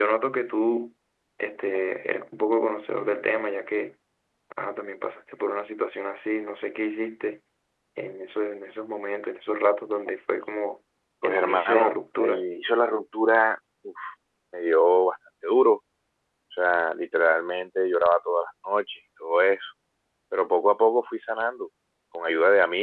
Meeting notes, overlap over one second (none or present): present